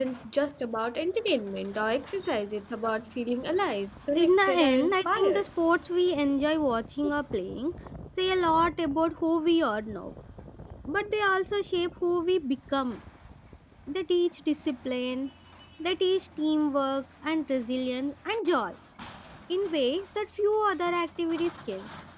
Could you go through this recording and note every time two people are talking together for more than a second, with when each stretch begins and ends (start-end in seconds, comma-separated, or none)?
4.2-5.4